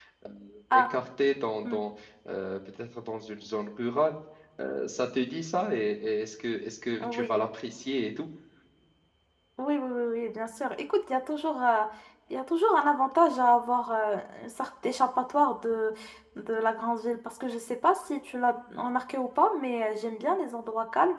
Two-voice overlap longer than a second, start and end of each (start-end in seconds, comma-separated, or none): none